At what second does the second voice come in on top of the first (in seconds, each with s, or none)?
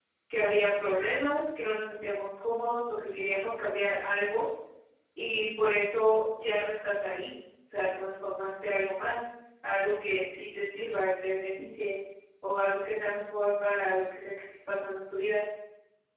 none